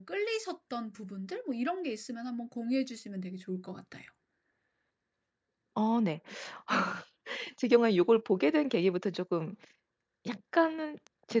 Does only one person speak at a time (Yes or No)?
Yes